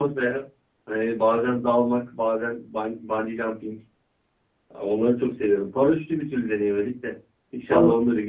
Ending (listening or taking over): taking over